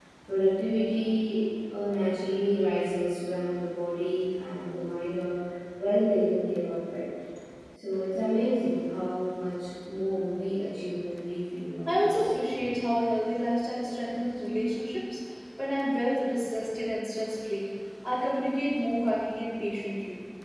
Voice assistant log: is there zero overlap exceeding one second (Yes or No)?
Yes